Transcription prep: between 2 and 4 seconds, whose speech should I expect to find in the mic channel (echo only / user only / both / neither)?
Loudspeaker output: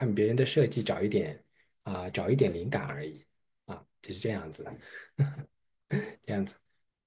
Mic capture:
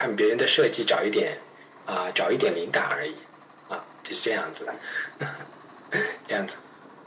echo only